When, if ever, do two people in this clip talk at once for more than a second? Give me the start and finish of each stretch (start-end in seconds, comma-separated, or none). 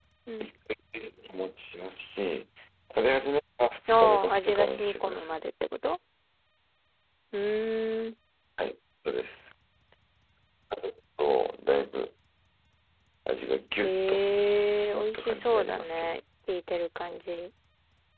4.0-5.4, 14.8-16.1